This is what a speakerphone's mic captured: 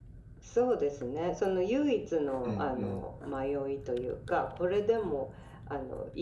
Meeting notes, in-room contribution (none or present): present